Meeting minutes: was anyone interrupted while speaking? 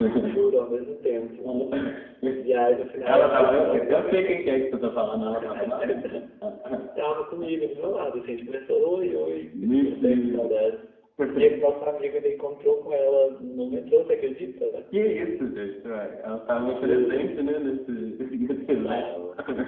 Yes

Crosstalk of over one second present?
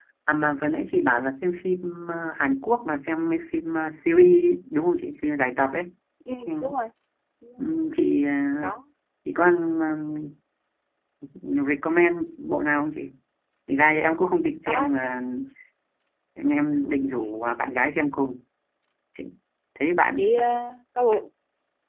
No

